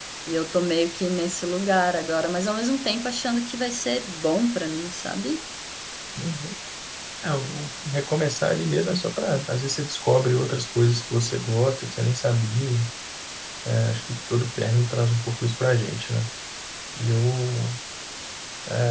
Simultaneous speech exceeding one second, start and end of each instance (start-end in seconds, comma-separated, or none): none